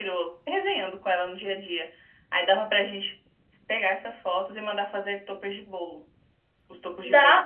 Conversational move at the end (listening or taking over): taking over